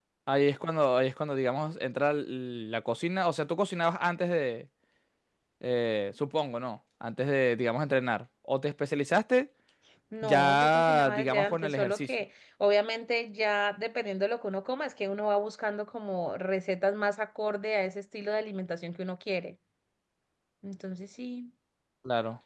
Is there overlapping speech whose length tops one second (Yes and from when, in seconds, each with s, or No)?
Yes, from 10.2 s